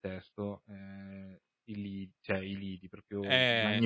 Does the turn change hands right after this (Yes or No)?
Yes